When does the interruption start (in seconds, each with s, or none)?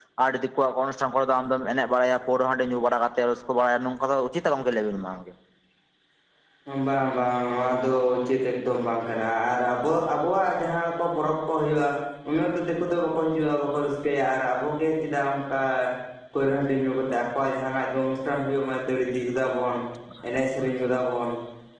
none